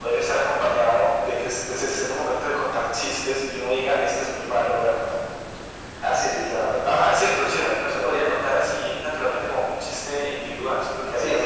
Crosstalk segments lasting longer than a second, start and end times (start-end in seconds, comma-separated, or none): 6.8-8.1